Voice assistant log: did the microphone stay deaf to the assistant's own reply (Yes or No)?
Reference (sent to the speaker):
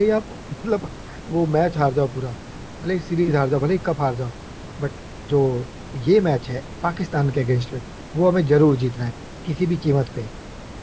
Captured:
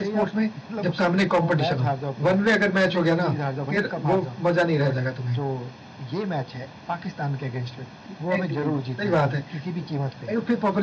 No